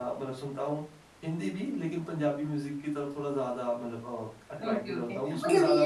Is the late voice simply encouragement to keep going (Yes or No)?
No